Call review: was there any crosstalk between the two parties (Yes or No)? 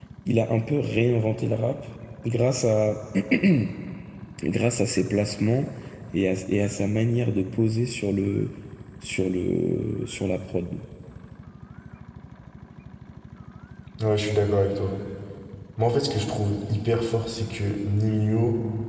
No